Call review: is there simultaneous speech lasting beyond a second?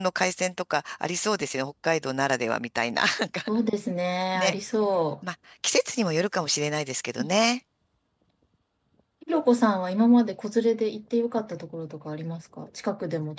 No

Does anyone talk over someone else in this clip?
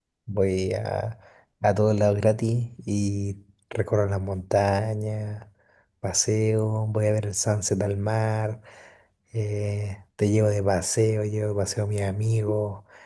No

